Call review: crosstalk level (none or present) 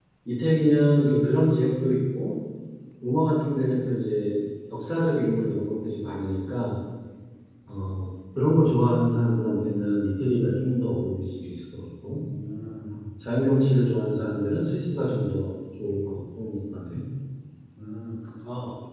none